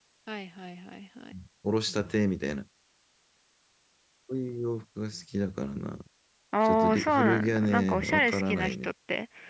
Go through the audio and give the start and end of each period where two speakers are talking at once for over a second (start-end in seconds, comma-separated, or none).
6.7-8.9